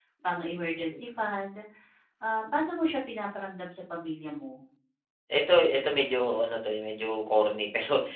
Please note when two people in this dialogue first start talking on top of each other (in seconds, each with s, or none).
none